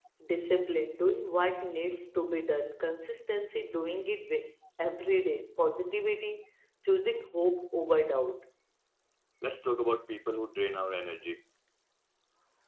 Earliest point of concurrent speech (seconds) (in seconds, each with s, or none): none